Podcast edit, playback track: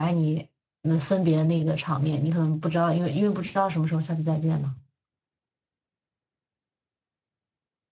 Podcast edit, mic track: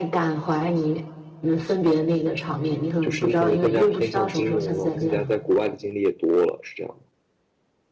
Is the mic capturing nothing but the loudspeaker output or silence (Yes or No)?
No